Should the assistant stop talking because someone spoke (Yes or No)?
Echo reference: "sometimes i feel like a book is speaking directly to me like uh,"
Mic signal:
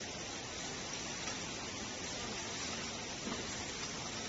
No